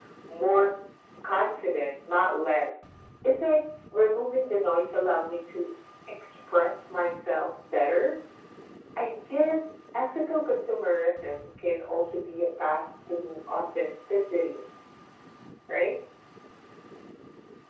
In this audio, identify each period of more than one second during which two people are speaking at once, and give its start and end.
none

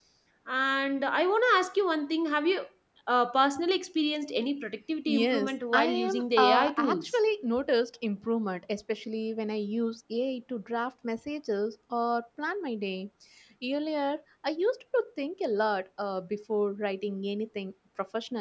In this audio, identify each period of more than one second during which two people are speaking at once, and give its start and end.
5.2-7.2

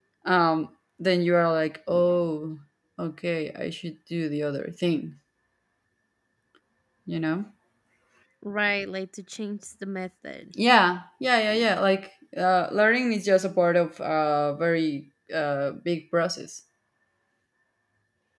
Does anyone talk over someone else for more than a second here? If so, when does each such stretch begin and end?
none

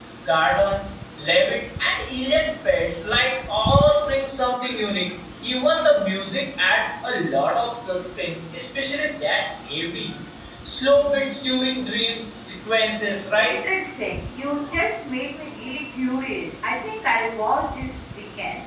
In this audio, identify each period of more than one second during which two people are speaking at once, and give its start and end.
none

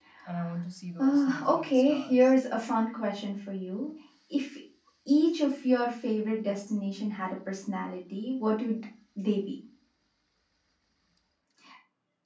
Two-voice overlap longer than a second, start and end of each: 1.0-2.3

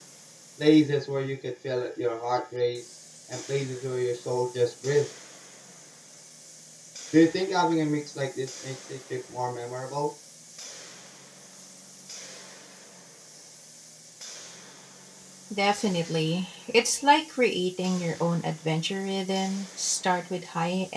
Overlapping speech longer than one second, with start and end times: none

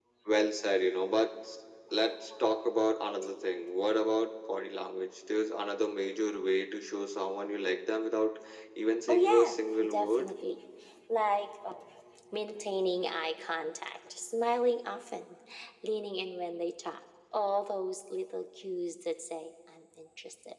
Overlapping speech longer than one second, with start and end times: 9.1-10.3

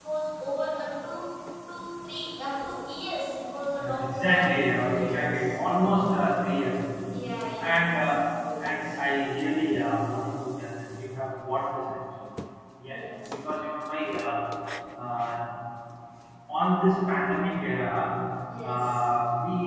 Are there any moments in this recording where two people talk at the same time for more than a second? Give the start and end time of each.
3.8-5.5

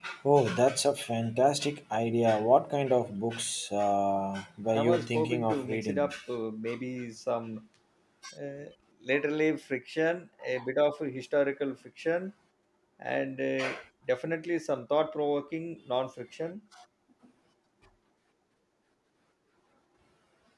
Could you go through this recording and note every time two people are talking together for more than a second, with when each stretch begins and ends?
4.7-6.1

